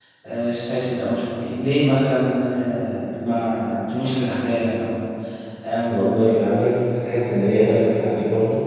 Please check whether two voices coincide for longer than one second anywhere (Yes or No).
No